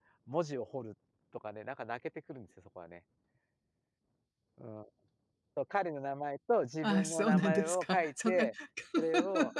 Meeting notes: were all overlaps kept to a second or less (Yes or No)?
No